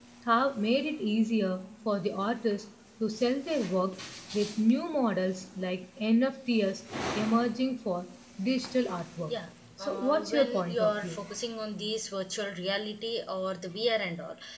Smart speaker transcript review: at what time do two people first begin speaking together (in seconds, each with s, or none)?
9.8 s